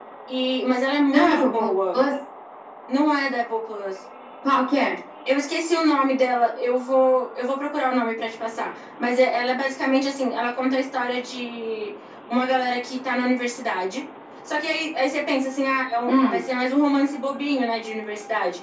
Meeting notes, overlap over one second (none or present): none